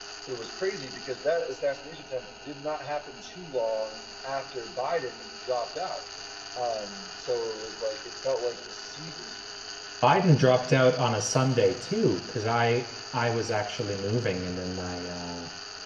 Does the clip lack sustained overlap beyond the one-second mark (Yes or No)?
Yes